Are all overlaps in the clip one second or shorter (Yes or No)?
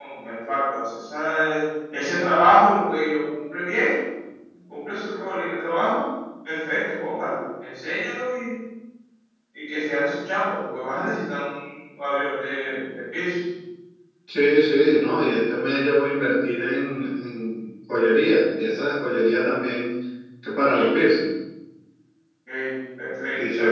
Yes